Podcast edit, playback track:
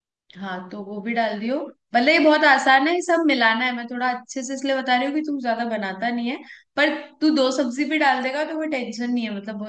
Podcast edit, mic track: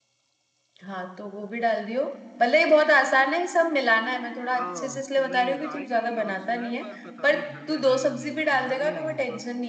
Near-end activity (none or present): present